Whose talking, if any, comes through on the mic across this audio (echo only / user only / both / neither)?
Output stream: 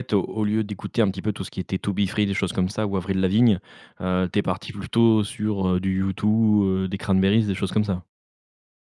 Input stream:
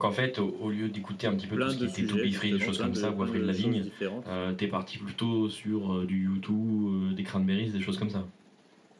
both